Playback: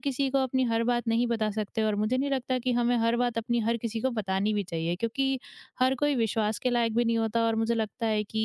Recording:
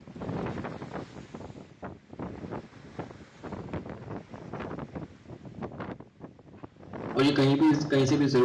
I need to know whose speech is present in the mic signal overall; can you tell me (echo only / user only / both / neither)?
user only